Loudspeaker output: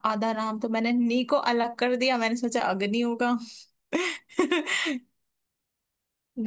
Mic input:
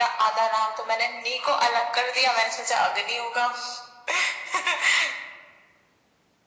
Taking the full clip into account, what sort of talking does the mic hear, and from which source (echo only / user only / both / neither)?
echo only